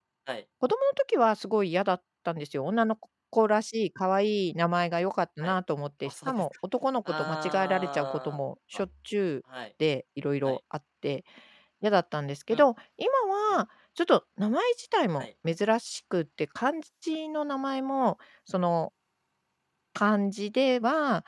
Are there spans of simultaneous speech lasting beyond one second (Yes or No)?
Yes